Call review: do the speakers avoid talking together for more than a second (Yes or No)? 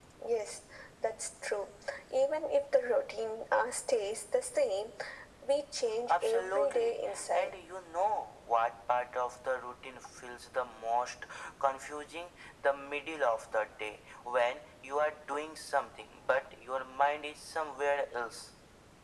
No